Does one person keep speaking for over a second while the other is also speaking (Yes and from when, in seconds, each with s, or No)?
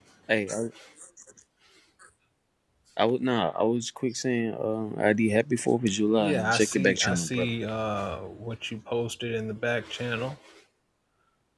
Yes, from 6.2 s